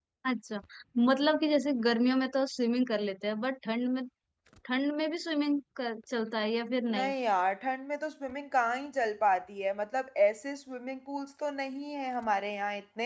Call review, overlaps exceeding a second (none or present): none